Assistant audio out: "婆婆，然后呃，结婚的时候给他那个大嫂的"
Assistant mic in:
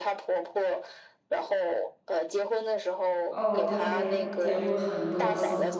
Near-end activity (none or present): present